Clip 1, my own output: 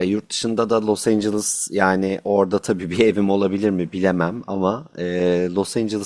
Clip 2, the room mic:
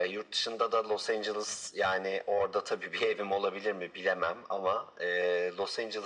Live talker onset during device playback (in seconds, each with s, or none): none